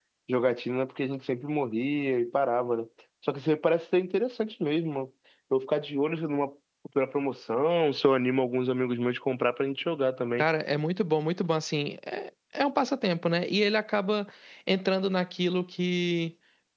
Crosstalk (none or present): none